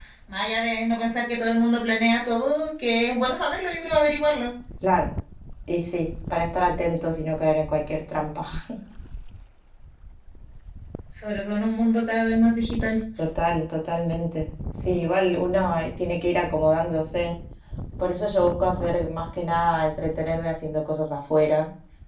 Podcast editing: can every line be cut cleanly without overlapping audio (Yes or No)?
Yes